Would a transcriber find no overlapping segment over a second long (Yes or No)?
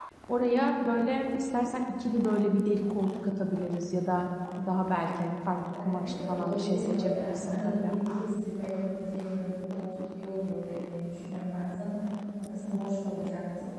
No